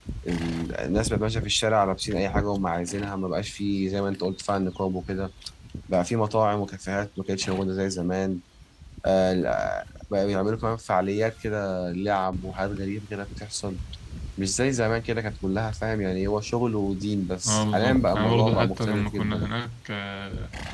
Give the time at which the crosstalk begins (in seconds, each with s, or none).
17.4 s